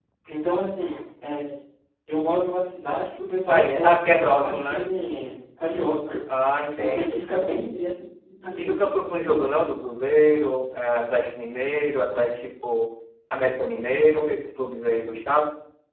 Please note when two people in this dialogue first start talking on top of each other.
3 s

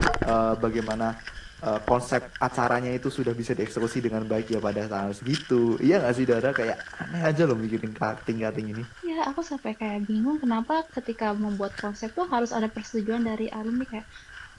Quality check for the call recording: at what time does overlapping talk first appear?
none

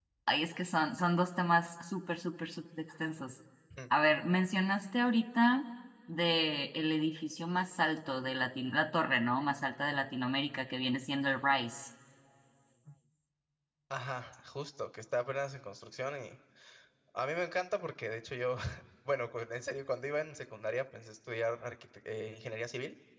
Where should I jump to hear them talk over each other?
none

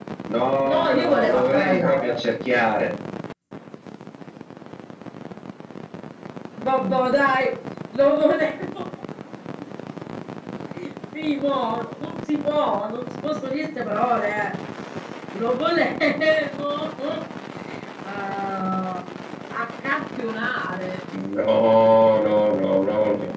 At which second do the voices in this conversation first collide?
1 s

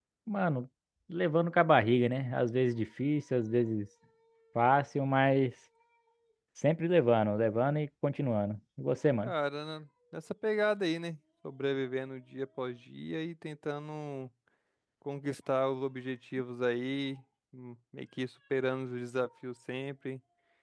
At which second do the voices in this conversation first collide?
none

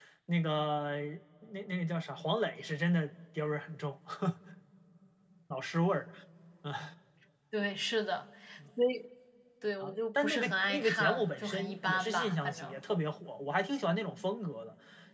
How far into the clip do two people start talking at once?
10 s

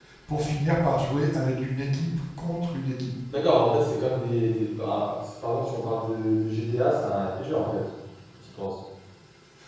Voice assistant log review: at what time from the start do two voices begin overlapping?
none

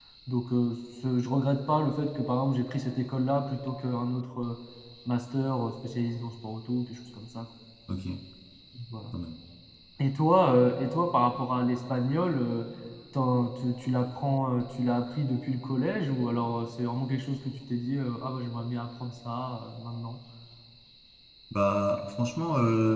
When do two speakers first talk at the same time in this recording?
none

